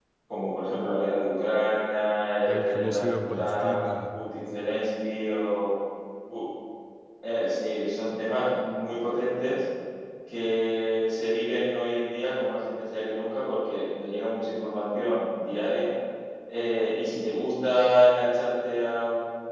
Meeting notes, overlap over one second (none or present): present